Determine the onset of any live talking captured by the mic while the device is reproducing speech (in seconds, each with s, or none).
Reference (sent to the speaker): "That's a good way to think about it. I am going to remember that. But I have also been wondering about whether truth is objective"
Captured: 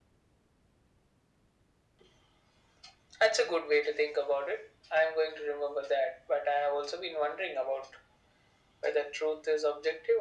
none